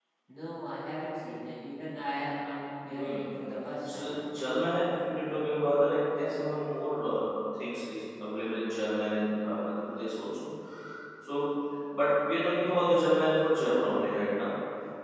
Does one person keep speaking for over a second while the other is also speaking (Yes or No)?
No